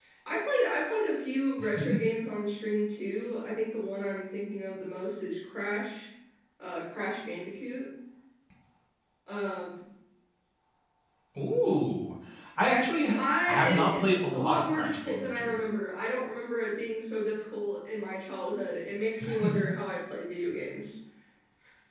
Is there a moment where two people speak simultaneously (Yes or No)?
Yes